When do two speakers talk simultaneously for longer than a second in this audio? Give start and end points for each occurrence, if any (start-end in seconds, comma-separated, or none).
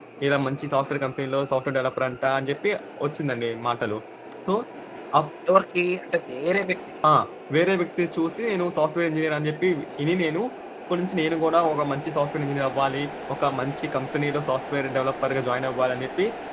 none